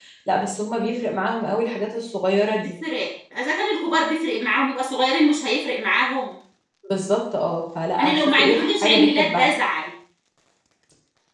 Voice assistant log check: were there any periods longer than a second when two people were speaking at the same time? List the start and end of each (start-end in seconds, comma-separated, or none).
8.0-9.5